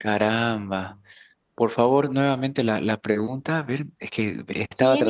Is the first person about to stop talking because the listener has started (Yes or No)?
Yes